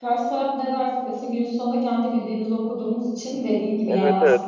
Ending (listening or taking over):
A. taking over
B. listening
A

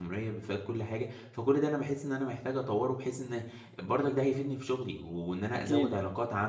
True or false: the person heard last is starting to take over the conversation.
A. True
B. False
B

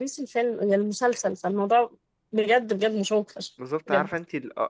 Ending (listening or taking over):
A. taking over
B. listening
A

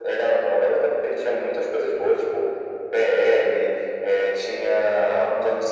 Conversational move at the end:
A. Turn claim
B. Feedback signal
B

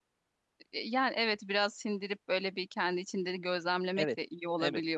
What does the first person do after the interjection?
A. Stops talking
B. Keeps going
A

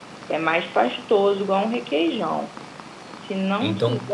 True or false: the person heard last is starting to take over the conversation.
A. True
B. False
B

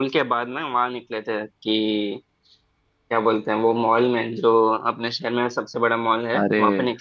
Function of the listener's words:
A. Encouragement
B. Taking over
B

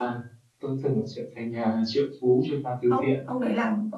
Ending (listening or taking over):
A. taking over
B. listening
A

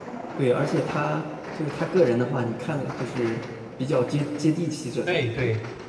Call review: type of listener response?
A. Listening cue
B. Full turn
B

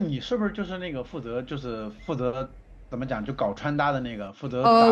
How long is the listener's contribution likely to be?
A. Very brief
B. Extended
B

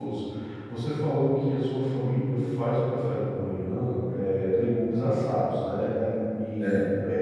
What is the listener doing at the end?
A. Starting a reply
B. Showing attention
B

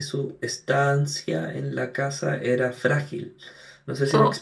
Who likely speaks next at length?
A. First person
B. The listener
A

